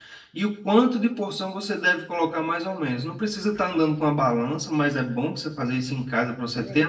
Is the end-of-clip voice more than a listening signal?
No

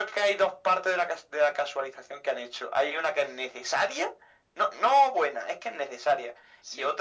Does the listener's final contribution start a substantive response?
No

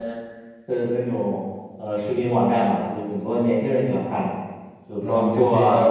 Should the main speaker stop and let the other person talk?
Yes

